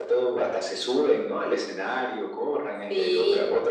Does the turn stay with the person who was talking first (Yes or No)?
No